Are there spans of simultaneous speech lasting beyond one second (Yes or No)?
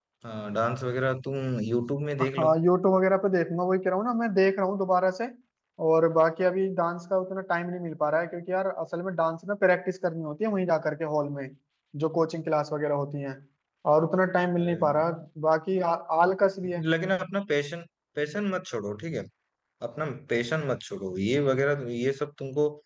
No